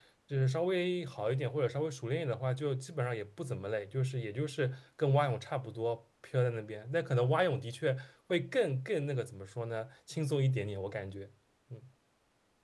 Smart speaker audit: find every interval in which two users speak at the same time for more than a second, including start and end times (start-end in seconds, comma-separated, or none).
none